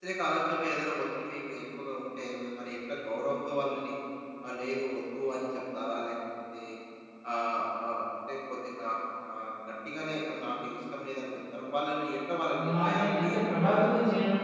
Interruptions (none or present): present